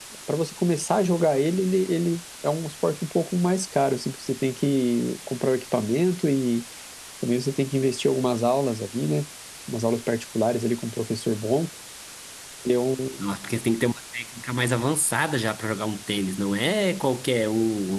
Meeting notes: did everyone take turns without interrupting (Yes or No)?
Yes